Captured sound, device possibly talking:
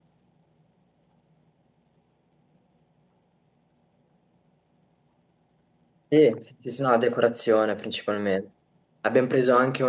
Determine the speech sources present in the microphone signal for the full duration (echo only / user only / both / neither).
user only